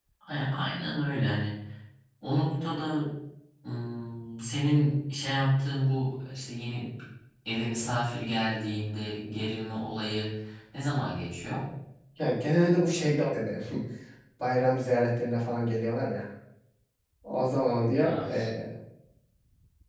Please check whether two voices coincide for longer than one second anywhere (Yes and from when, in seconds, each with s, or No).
No